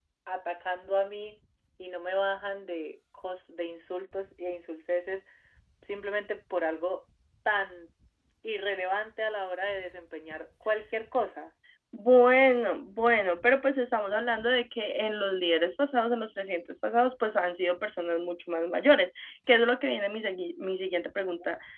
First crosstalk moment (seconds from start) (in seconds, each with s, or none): none